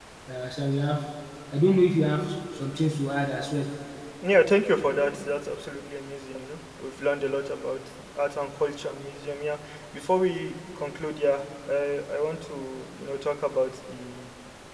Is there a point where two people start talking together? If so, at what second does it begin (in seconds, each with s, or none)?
none